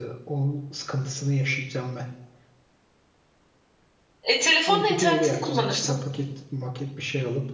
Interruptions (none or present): present